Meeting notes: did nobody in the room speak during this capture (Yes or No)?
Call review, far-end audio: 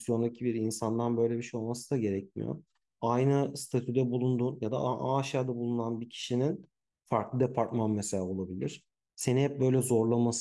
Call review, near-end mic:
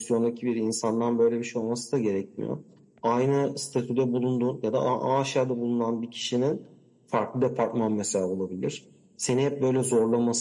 Yes